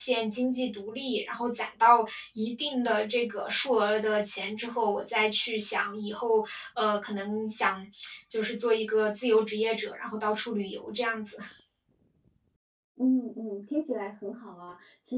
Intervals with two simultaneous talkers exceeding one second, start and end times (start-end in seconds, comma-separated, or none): none